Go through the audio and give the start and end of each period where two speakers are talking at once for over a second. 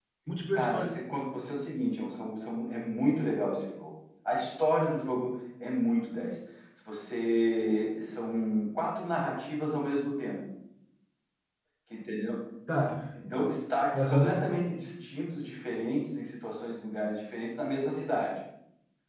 none

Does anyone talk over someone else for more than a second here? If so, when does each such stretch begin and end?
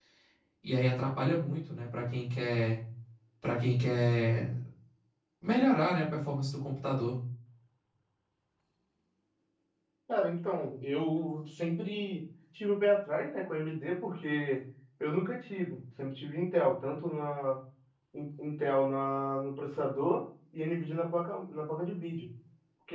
none

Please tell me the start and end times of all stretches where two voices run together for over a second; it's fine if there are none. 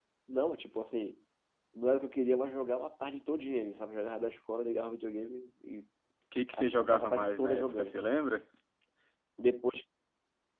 6.5-8.0

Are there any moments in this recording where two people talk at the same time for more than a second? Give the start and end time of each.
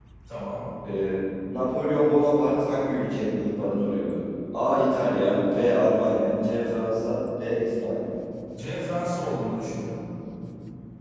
none

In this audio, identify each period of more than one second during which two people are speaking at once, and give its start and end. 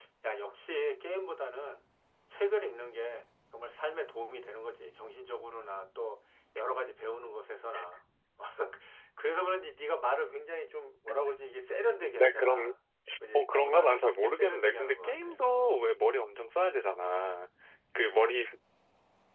13.3-15.4

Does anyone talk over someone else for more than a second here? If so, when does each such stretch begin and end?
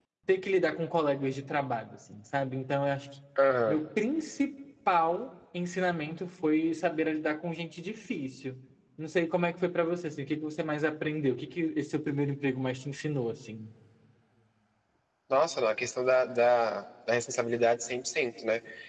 none

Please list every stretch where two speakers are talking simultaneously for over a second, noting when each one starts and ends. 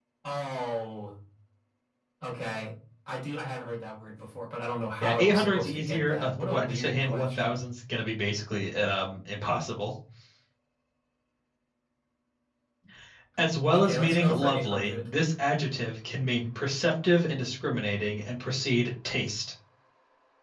5.0-7.7, 13.7-15.1

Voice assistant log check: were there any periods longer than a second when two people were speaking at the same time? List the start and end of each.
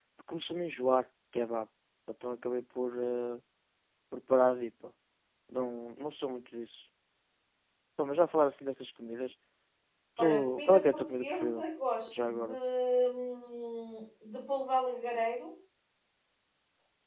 10.2-11.6

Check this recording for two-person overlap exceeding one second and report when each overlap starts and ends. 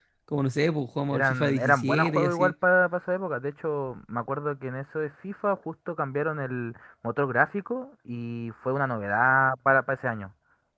1.1-2.5

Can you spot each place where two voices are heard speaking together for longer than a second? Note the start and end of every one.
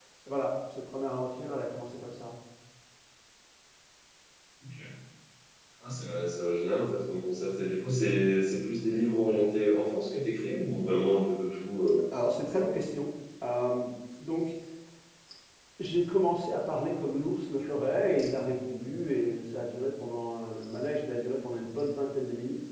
none

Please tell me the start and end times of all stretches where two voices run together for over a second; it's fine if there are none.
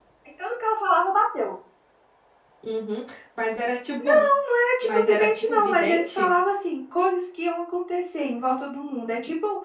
4.8-6.3

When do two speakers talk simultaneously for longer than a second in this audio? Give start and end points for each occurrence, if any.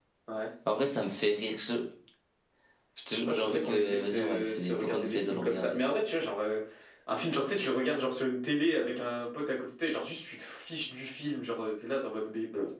3.3-5.8

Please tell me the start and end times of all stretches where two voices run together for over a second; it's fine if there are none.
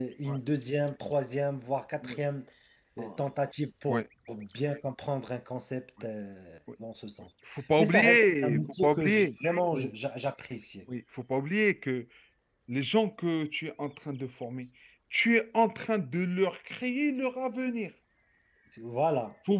7.8-9.3

